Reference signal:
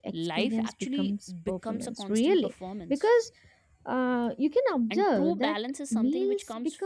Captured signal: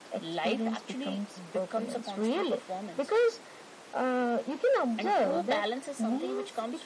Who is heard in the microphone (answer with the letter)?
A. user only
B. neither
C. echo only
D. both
C